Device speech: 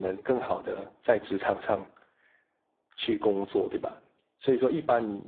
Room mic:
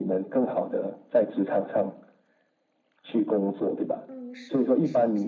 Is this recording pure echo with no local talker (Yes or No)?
No